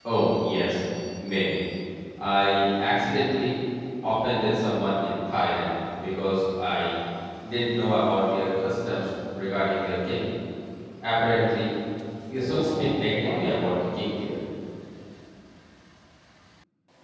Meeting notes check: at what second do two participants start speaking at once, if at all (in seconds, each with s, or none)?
12.4 s